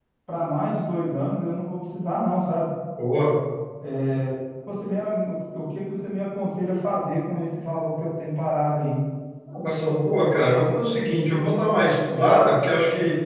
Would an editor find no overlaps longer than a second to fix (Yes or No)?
Yes